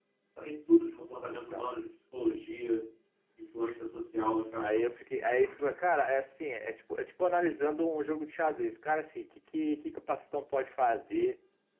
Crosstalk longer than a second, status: none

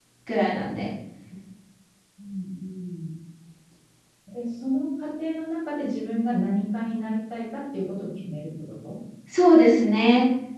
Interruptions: none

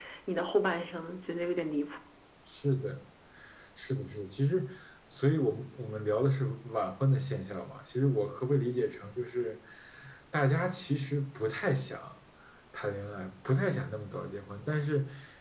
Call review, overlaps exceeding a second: none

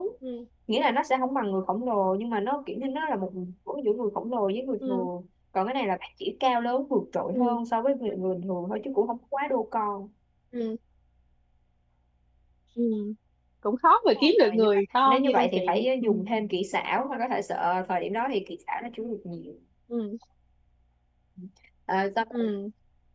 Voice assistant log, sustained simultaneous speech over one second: present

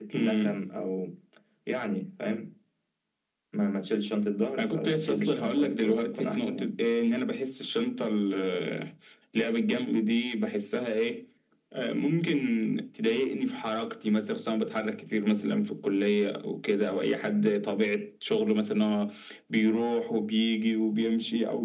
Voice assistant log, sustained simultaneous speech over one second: present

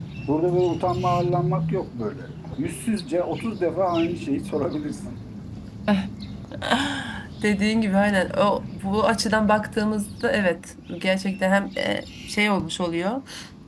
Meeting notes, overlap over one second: none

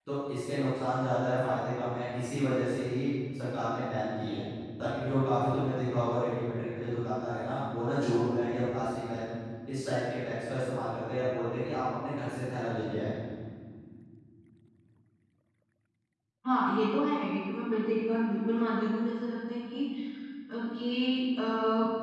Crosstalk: none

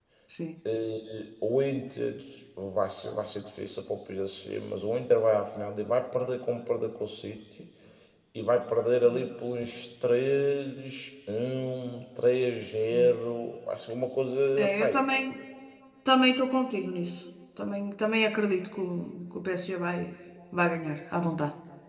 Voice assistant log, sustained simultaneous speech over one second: none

